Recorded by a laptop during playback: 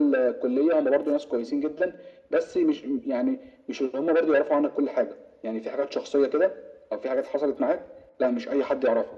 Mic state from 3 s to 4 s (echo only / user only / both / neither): echo only